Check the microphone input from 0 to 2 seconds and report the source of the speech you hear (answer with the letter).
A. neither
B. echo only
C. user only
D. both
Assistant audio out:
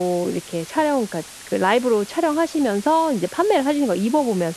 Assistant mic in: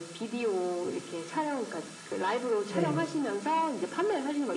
B